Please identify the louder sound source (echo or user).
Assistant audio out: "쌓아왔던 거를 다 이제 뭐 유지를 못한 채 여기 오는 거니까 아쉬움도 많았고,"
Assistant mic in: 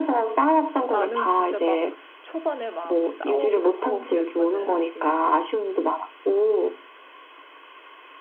echo